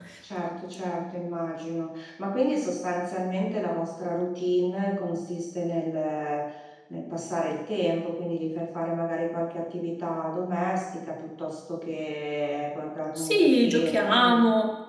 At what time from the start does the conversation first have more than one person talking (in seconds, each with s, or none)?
13.2 s